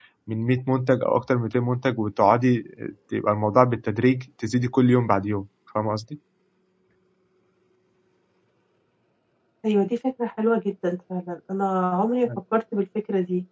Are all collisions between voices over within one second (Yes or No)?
Yes